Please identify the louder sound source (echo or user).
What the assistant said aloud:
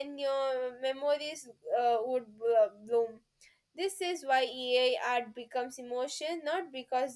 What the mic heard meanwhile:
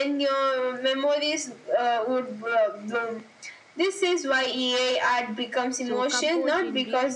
echo